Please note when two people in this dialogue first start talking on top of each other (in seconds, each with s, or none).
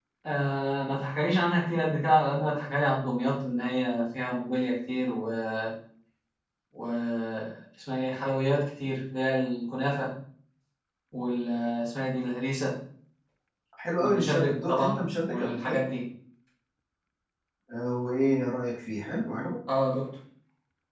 14.0 s